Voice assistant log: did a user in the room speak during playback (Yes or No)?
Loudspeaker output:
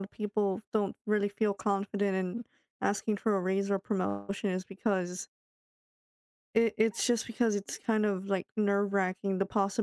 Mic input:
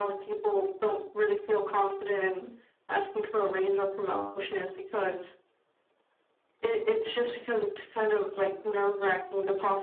No